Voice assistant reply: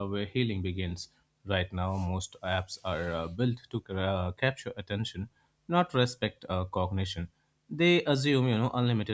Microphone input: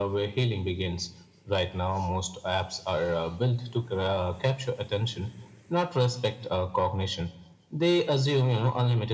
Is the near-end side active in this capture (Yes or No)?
No